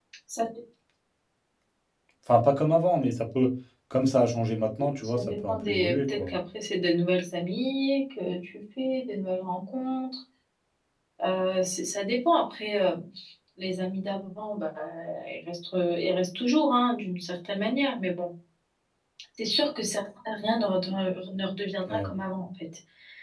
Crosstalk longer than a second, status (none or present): present